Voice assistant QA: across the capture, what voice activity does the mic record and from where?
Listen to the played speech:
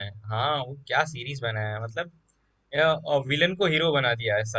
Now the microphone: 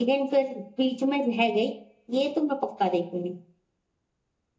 user only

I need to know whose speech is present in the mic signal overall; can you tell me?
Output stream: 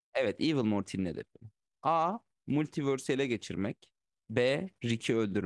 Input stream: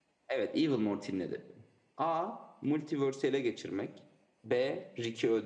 echo only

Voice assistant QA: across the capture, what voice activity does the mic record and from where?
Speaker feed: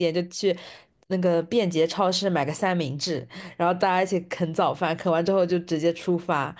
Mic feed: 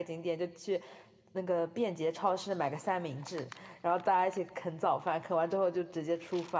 echo only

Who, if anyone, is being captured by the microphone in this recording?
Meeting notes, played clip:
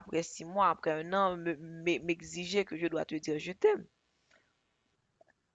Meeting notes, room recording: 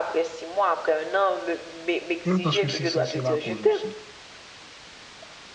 both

